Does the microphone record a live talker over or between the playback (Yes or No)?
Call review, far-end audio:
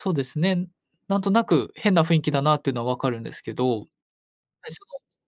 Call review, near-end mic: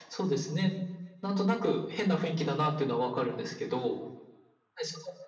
No